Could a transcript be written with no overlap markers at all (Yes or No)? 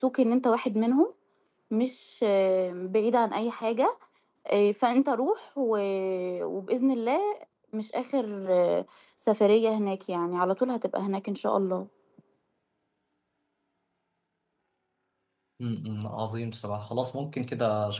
Yes